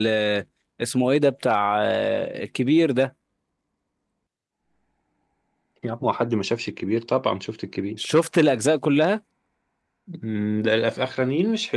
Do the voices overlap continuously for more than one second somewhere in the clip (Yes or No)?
No